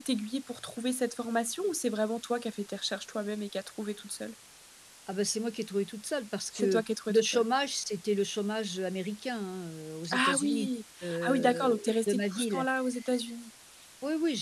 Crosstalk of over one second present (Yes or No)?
Yes